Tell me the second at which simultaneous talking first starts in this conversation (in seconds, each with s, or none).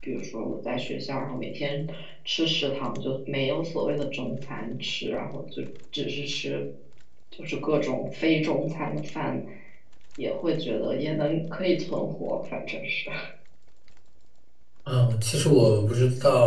none